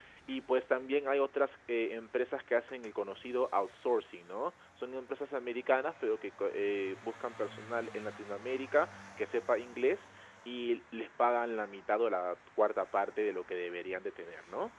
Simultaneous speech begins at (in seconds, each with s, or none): none